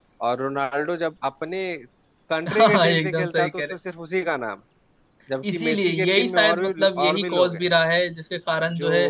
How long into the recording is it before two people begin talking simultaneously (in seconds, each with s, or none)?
2.5 s